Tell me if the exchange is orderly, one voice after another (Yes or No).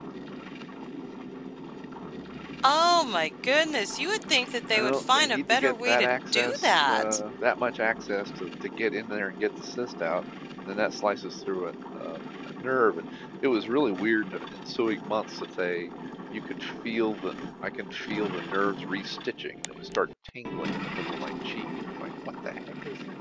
No